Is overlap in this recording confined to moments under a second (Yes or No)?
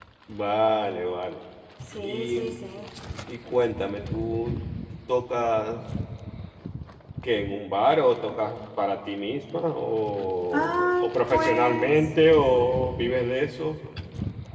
No